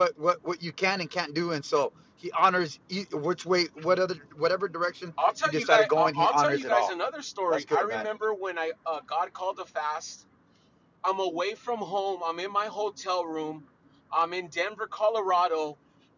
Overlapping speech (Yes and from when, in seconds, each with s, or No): Yes, from 5.5 s